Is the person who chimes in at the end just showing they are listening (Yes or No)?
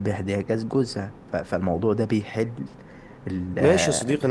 No